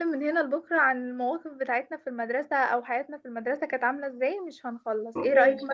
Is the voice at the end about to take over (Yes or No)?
No